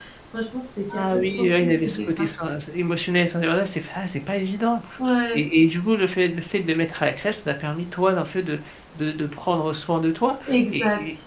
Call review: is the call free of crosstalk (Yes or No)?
No